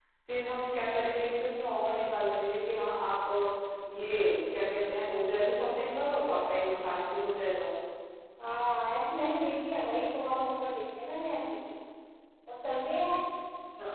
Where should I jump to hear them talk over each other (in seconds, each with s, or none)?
none